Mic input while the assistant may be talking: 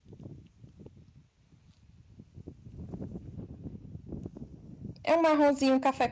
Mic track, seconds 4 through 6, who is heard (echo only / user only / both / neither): user only